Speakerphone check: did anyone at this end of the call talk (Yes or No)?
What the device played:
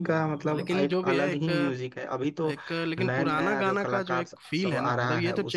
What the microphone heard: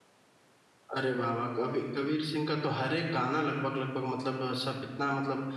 Yes